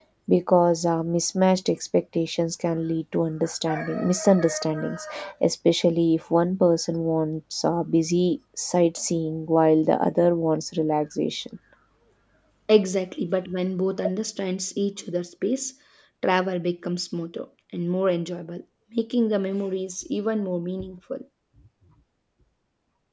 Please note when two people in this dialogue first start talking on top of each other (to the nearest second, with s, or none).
none